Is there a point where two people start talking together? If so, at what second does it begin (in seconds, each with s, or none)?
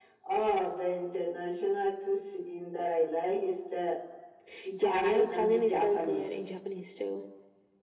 4.8 s